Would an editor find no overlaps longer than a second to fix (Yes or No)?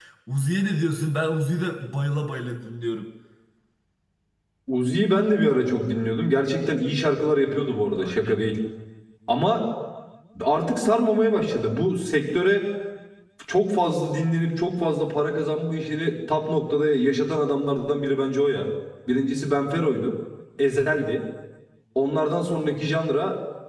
Yes